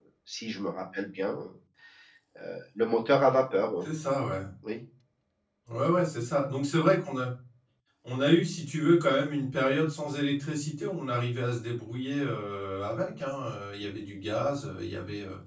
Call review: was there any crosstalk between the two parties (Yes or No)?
No